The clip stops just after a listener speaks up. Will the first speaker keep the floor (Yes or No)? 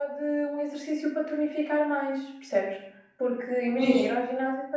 Yes